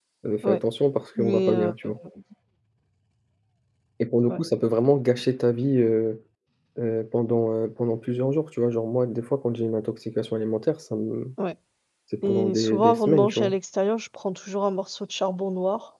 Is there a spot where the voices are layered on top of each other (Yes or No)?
Yes